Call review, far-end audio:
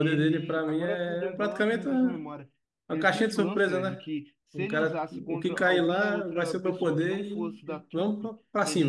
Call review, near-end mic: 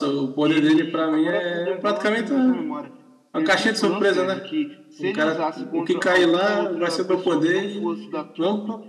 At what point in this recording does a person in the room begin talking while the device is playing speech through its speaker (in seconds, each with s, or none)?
none